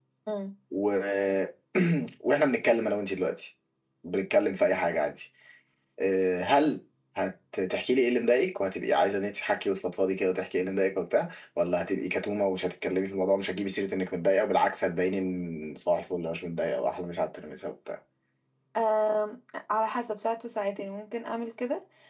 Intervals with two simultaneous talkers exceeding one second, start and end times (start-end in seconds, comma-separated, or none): none